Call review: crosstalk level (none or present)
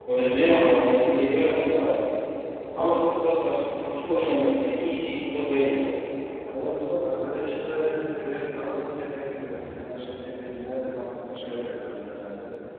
none